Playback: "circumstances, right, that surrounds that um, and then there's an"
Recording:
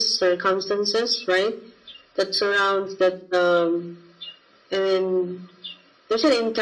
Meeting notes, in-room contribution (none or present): none